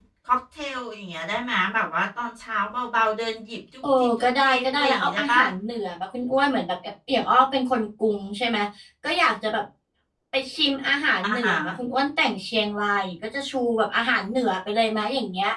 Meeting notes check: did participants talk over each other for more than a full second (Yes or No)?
Yes